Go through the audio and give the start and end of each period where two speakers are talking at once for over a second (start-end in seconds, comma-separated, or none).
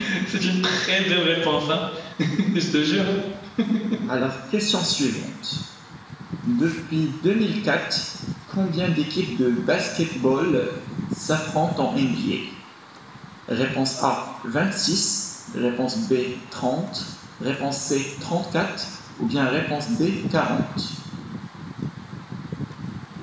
none